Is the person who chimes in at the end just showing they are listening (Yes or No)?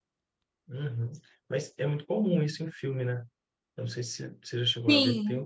Yes